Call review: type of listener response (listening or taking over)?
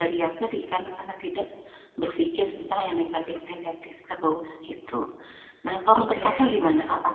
listening